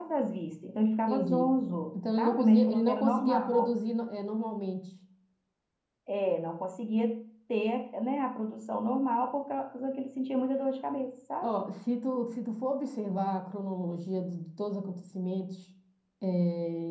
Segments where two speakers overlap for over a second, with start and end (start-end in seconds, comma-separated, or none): 2.2-3.7